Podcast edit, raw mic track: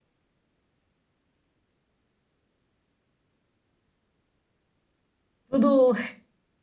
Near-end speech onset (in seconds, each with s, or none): 5.5 s